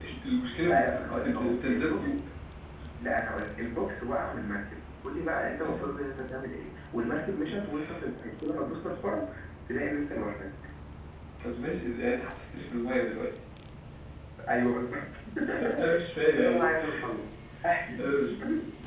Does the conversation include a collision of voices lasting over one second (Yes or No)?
Yes